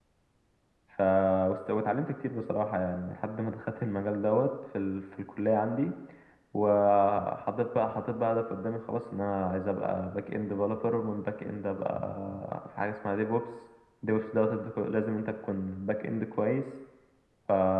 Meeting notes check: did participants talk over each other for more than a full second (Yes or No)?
No